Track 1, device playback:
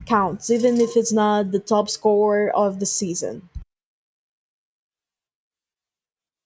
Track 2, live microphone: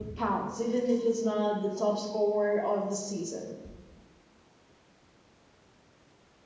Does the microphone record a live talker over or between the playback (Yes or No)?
No